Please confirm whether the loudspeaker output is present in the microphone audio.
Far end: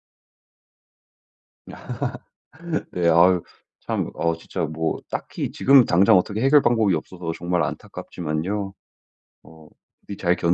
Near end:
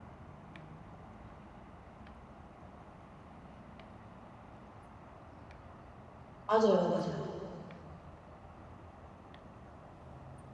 No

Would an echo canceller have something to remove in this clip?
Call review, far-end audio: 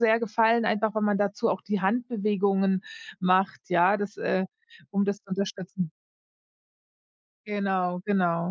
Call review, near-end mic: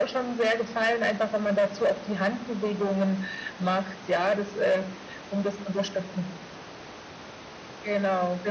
Yes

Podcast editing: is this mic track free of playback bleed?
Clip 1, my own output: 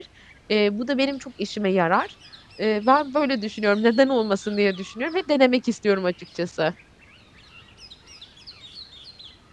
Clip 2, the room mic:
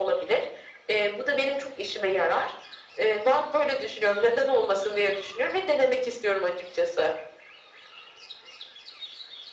No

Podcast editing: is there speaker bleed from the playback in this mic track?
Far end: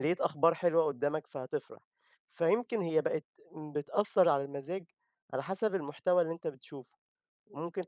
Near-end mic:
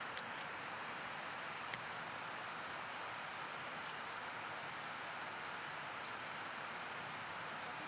No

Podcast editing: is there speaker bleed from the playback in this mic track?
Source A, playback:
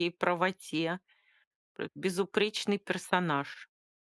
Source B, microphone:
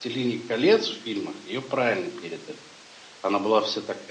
No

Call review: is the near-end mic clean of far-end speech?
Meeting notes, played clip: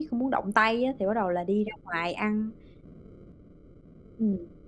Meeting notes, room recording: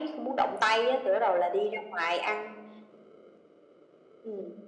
No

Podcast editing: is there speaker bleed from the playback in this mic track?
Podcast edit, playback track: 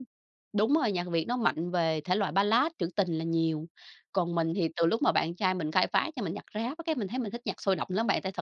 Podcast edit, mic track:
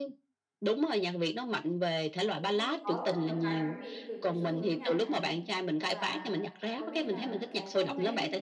Yes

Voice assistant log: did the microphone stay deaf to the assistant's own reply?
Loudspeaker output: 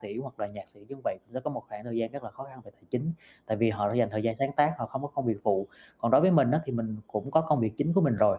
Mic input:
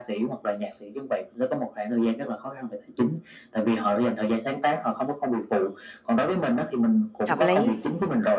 No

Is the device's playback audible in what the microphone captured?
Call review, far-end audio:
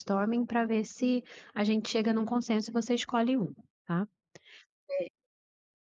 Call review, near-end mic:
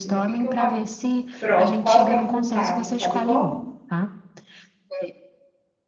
Yes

